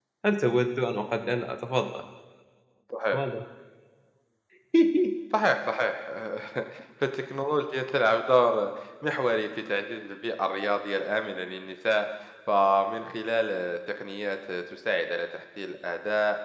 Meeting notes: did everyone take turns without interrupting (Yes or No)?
Yes